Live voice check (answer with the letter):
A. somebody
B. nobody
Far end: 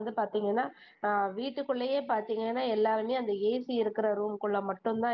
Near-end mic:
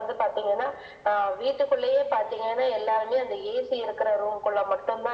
B